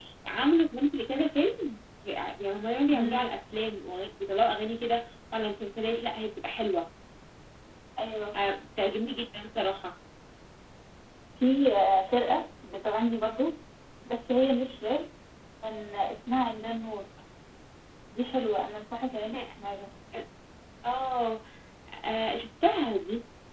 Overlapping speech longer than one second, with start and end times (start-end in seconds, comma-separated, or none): none